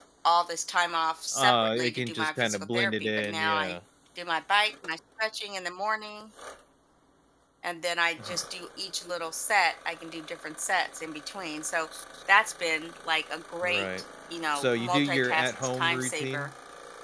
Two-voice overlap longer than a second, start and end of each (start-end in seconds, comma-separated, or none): 1.3-3.7, 14.5-16.5